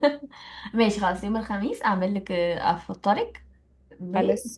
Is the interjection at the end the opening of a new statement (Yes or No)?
No